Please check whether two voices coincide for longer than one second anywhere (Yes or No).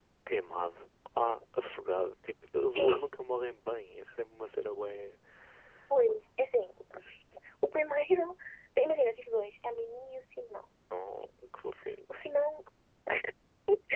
No